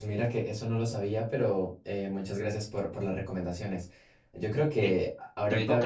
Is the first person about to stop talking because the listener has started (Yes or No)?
Yes